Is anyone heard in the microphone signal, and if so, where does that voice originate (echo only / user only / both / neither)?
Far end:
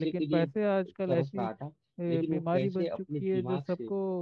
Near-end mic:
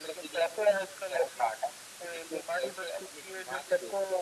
echo only